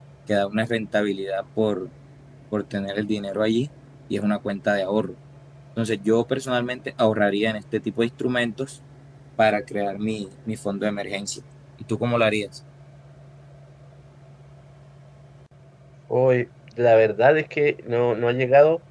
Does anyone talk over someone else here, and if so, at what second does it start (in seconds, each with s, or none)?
none